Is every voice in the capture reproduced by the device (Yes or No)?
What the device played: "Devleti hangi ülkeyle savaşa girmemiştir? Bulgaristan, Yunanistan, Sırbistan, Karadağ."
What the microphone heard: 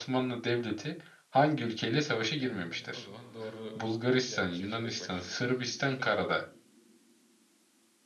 No